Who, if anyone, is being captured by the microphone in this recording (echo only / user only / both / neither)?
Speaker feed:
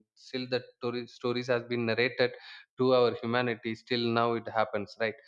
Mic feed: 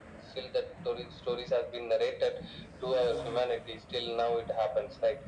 echo only